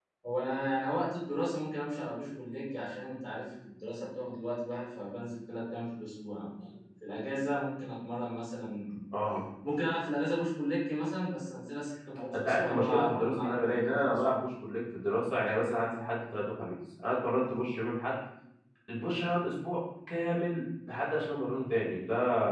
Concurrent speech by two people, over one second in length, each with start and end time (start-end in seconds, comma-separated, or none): 12.3-14.4